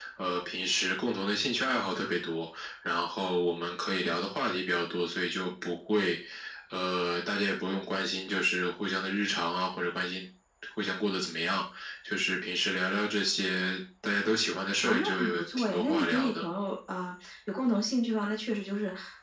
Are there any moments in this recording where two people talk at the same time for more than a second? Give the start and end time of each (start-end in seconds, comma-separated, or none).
14.8-16.4